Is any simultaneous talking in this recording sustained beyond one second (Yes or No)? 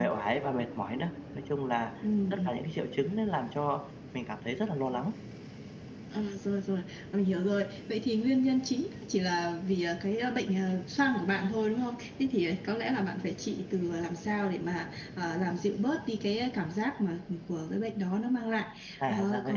No